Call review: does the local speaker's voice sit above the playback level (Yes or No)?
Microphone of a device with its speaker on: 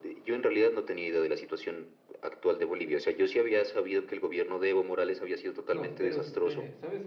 No